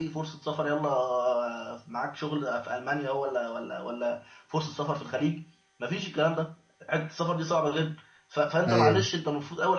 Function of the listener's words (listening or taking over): listening